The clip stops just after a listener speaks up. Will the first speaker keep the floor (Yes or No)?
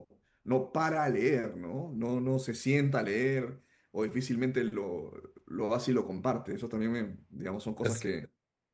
Yes